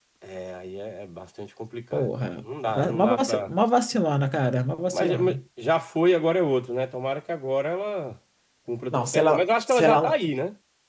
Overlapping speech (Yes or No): Yes